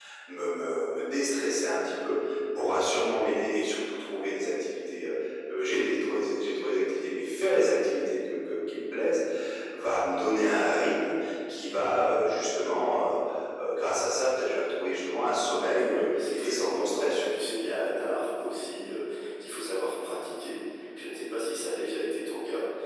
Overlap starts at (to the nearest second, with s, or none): 16 s